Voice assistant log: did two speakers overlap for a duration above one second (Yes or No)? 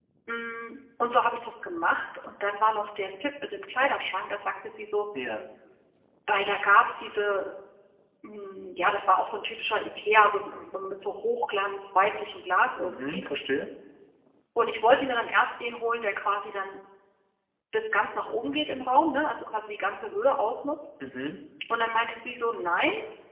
No